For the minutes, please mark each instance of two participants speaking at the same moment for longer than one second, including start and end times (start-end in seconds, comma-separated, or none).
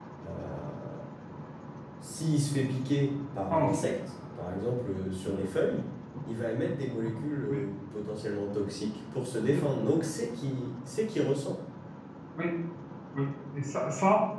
none